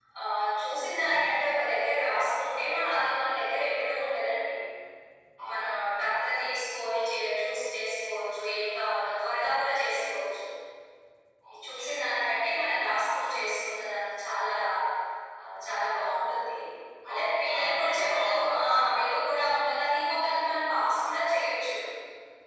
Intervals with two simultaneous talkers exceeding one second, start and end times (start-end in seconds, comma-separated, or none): 17.1-18.6